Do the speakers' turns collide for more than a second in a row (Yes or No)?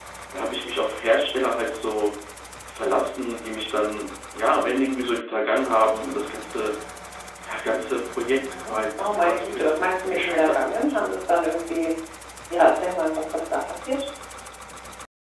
Yes